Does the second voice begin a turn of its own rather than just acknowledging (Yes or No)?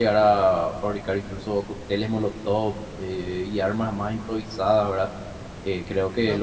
No